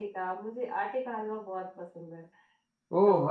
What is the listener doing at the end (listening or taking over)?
taking over